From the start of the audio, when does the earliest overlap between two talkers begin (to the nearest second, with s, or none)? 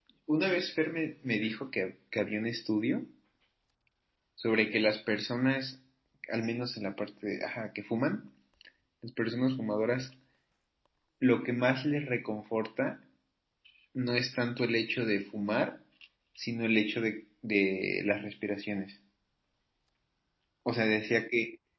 none